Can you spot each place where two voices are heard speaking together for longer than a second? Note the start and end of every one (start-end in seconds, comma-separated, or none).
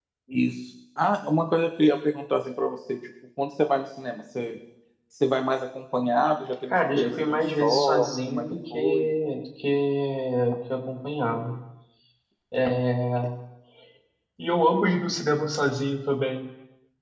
6.7-9.1